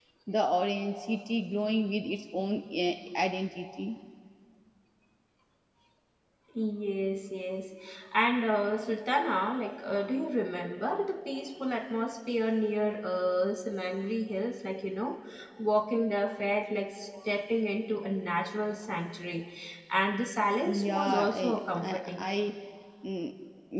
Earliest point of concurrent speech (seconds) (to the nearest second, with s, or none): 21 s